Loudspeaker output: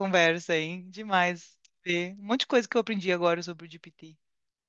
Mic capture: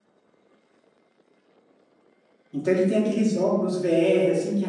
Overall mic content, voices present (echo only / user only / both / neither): user only